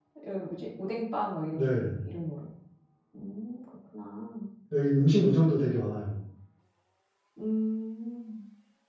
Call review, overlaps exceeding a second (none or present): none